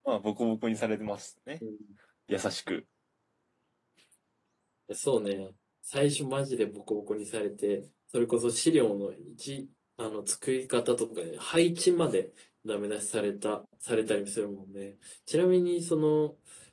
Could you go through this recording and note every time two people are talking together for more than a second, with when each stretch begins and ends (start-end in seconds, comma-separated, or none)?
none